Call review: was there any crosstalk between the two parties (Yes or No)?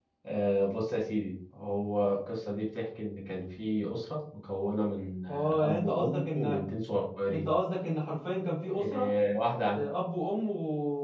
Yes